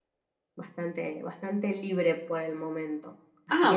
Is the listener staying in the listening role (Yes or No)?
Yes